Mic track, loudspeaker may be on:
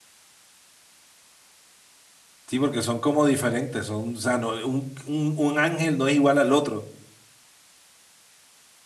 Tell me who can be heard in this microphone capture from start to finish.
user only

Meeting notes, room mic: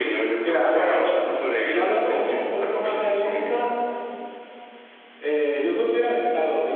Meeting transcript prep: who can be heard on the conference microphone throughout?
both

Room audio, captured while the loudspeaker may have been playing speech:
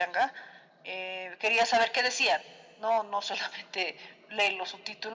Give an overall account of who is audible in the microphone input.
echo only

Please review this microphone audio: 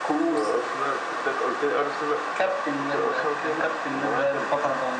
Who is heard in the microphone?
echo only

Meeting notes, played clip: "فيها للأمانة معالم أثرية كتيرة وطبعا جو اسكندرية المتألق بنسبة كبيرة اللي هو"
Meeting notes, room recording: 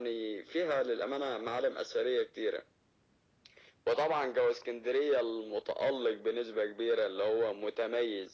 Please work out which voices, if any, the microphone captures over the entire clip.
echo only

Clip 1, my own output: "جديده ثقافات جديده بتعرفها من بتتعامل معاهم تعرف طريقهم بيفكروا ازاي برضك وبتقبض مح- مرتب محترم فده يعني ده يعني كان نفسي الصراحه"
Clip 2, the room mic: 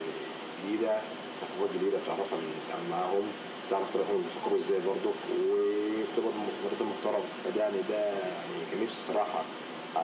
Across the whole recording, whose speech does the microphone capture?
echo only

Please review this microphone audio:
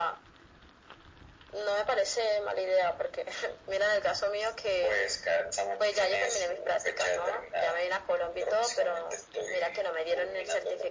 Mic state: echo only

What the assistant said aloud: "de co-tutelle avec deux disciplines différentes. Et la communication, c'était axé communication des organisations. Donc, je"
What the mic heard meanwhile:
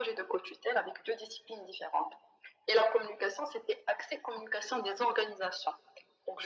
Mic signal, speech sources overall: echo only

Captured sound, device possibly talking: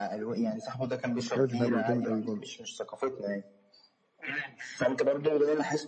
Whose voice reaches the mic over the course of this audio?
both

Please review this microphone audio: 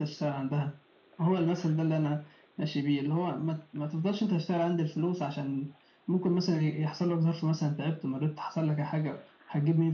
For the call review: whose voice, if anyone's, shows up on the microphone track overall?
echo only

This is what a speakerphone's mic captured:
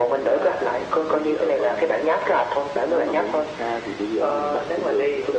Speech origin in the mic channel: echo only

